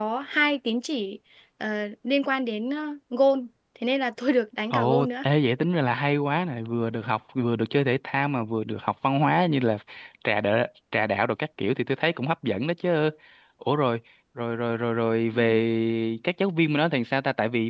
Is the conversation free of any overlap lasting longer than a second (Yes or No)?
Yes